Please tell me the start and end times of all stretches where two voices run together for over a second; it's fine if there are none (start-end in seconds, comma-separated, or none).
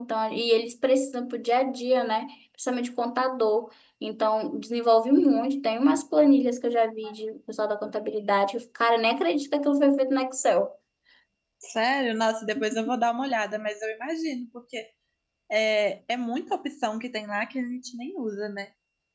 none